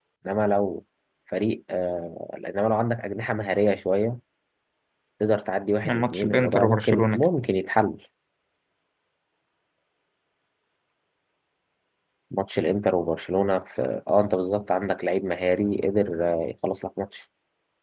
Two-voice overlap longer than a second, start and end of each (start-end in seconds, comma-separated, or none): 5.8-7.3